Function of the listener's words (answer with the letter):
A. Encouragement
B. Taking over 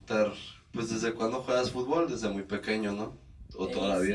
B